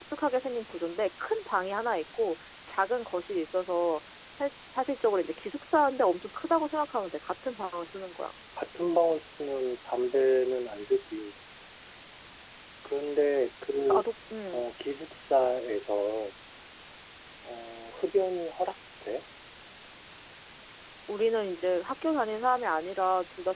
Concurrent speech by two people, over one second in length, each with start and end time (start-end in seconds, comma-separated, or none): none